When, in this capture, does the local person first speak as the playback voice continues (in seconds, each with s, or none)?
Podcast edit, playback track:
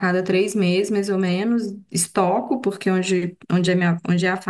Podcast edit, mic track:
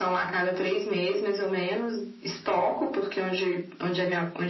none